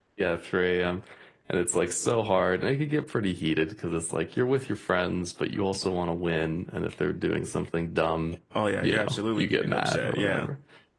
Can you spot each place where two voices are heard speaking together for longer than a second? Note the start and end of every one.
8.8-10.5

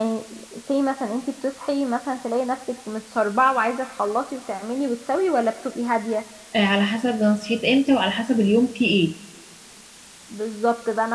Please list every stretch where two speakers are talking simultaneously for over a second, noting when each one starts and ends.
none

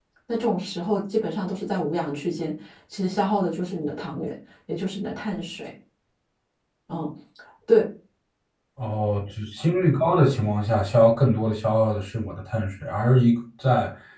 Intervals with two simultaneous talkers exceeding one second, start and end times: none

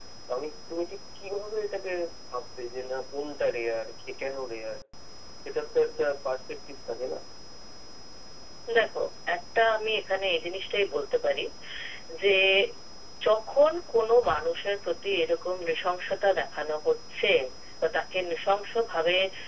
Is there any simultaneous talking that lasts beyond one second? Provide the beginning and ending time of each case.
none

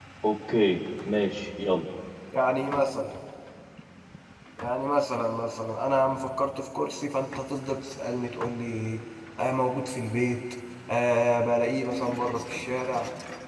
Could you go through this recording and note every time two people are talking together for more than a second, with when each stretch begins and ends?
none

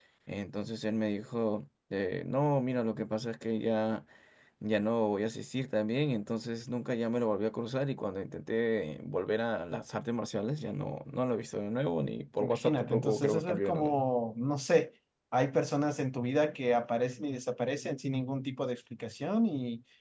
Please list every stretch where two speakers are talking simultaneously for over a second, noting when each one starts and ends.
12.4-14.0

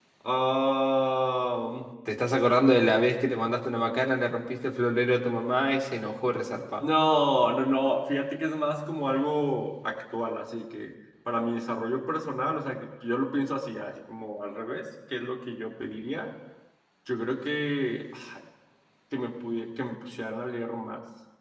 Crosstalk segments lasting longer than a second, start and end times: none

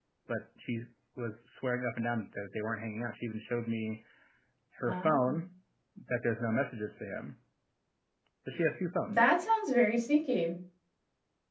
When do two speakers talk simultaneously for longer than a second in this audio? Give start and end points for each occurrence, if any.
none

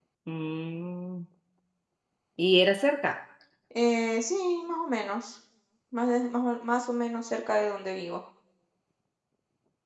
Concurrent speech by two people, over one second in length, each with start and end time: none

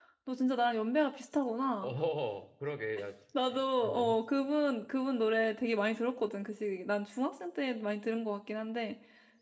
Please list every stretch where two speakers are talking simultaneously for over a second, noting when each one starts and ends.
none

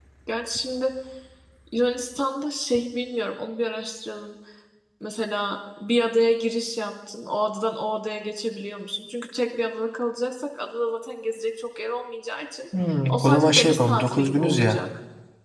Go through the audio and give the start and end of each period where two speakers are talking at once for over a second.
13.1-14.8

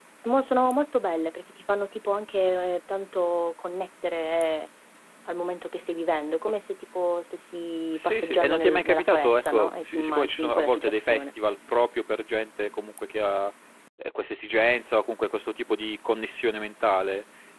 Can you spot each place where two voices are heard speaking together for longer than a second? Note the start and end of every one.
7.9-11.3

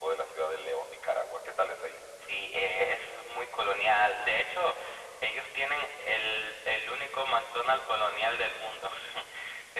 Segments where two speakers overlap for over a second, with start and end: none

